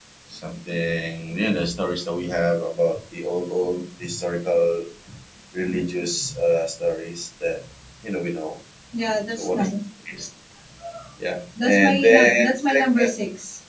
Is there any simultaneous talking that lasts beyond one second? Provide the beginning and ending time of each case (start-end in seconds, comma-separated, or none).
11.6-13.1